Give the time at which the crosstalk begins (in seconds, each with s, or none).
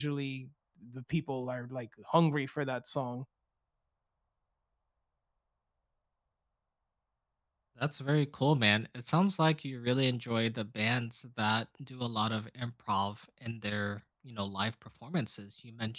none